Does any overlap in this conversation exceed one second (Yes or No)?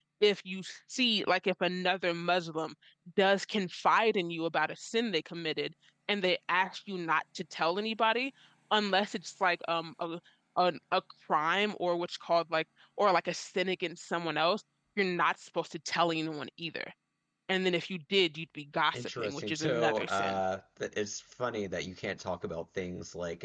Yes